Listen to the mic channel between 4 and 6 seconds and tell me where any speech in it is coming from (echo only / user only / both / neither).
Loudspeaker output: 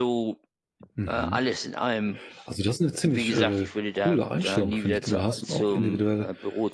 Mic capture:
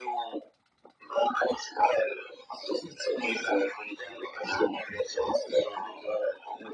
echo only